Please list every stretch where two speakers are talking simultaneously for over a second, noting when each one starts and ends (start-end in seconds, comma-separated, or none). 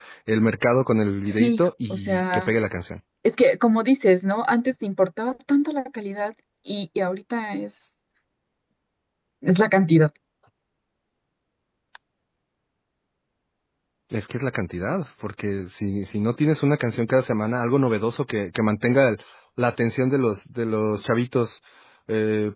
1.3-2.5